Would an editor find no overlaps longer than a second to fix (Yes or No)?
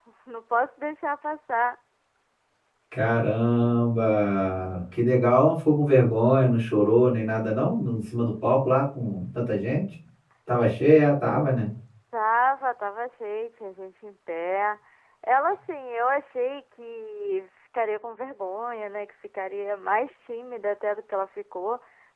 Yes